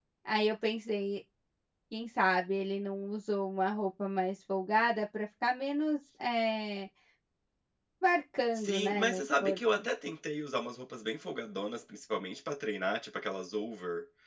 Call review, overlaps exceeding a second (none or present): present